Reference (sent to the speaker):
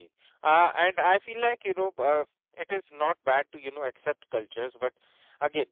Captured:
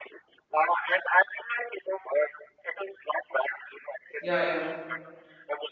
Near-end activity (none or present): present